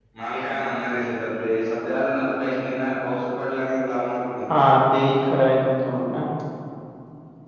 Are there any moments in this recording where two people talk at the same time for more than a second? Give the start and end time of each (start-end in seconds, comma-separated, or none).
none